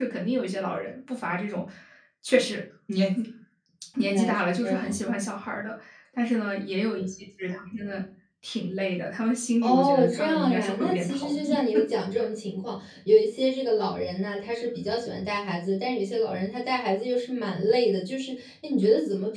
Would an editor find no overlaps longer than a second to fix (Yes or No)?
No